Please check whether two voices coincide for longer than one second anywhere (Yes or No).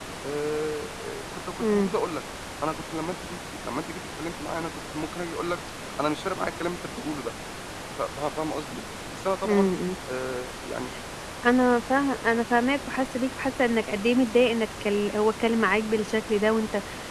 No